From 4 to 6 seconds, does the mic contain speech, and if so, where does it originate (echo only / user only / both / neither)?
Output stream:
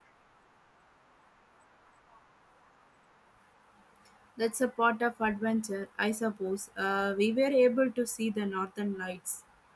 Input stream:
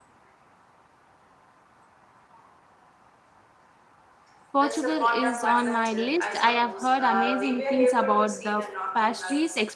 both